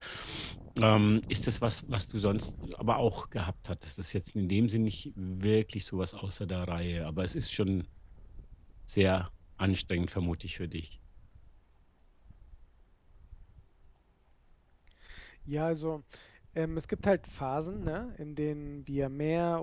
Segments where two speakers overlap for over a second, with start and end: none

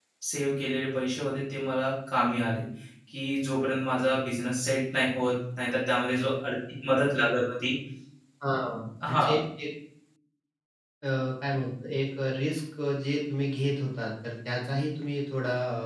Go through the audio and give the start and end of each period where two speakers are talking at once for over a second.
none

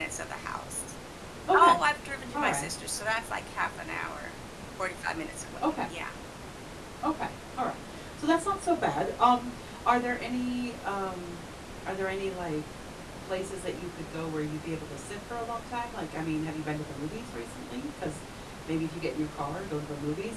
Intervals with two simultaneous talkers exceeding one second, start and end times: none

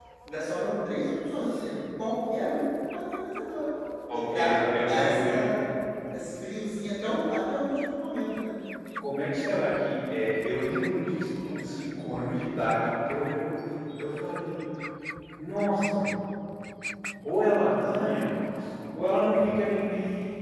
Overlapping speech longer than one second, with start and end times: 4.1-5.4

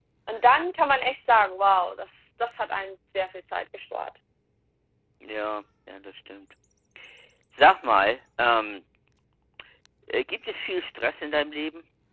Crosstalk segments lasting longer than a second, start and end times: none

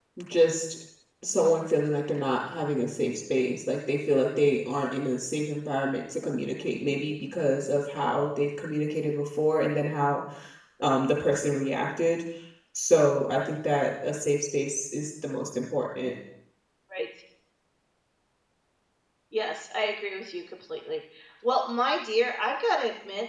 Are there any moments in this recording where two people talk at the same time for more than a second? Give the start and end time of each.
none

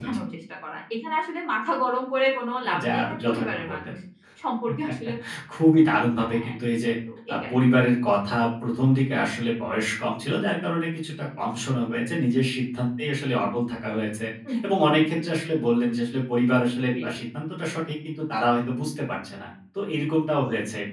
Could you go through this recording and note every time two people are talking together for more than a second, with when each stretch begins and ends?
2.7-3.9

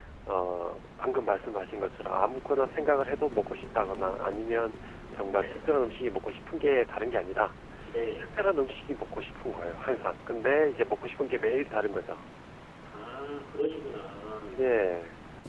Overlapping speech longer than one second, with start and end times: none

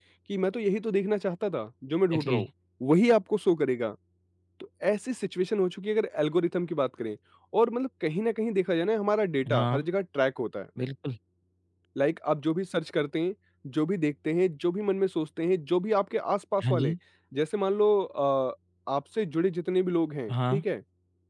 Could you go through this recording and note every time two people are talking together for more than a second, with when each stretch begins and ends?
none

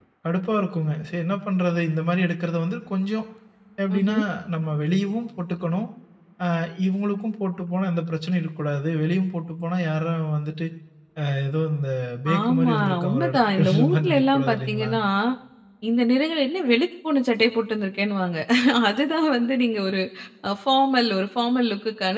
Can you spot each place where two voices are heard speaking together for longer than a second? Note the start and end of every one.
12.4-14.9

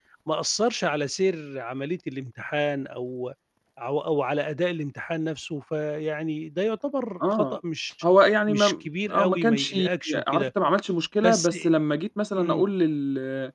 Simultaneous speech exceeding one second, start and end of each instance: 8.5-9.8

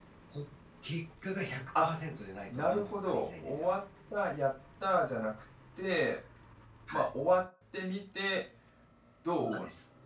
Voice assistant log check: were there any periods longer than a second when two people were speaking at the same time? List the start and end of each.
2.5-3.7

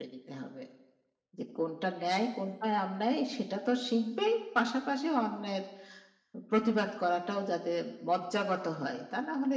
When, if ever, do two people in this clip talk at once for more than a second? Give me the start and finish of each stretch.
none

